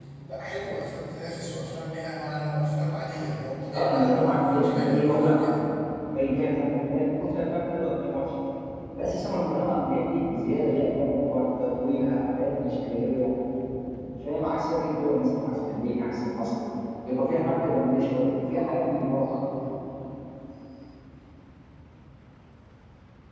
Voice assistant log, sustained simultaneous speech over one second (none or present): present